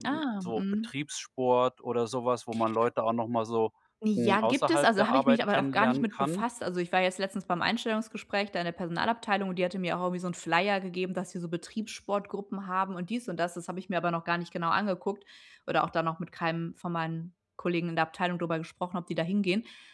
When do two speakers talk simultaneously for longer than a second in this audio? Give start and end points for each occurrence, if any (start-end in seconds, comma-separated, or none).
4.2-6.4